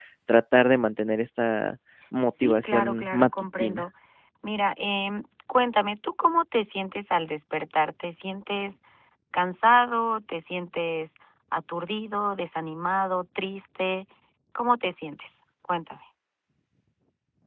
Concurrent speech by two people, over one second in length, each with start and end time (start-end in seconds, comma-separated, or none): 2.4-3.9